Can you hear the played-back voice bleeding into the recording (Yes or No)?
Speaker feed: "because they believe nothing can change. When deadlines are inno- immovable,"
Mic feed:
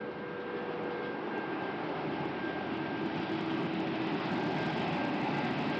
No